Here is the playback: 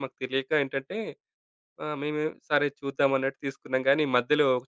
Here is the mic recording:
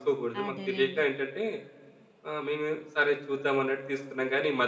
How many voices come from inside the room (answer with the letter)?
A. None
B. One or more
B